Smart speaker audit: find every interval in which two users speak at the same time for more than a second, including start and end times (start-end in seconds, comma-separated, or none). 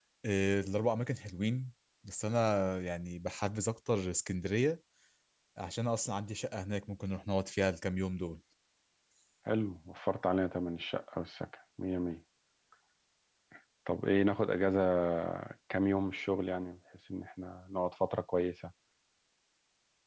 none